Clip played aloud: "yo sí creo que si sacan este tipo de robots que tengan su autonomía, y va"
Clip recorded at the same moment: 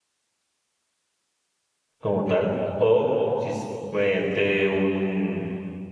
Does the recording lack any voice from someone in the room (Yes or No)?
No